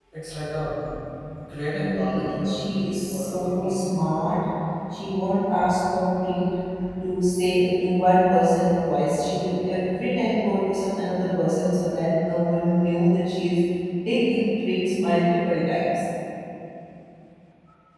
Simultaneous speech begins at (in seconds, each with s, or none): 1.7 s